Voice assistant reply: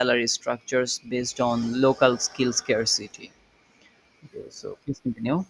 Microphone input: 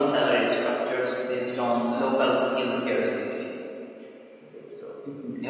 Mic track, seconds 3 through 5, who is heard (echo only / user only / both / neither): echo only